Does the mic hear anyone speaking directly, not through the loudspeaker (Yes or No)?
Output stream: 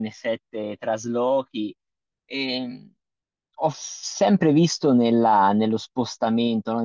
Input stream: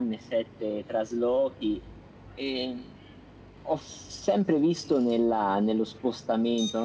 No